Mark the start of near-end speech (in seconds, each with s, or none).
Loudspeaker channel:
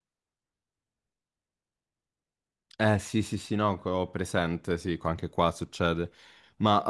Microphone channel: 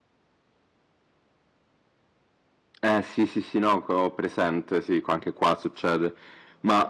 none